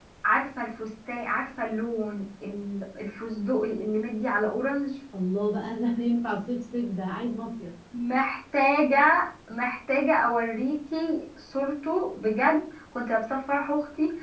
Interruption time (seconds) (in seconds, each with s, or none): none